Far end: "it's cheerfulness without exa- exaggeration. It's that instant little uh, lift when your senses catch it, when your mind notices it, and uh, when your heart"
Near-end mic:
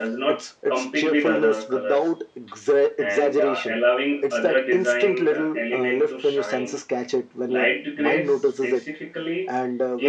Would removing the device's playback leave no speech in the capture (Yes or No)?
No